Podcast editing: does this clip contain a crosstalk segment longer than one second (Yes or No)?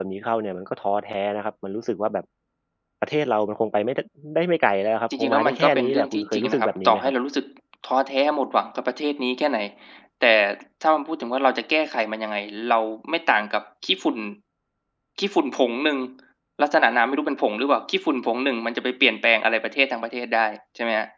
Yes